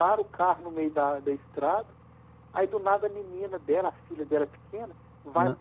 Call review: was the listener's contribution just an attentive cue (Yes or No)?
Yes